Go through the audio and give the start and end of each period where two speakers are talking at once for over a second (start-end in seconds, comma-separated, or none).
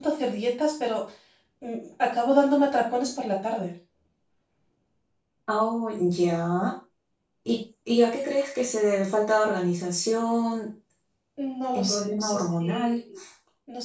11.7-13.0